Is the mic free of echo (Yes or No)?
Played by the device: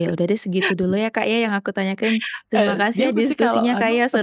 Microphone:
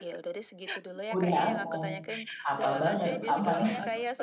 No